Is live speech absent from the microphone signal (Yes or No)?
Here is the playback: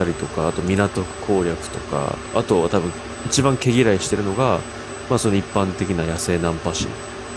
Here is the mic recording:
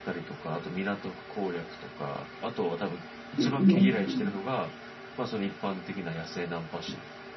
No